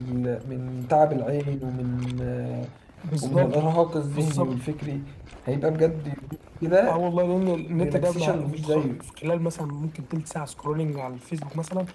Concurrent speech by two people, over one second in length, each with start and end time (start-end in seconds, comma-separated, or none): 7.8-9.1